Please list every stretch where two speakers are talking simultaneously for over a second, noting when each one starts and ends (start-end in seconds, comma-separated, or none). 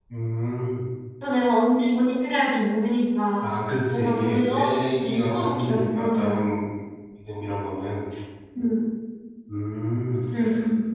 3.9-6.5